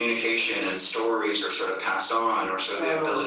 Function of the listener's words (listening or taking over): listening